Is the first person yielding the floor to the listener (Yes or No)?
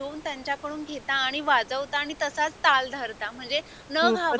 No